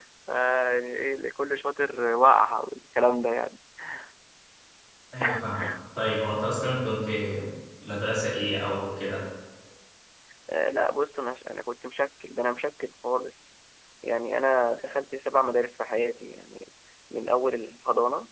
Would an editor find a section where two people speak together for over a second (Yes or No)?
No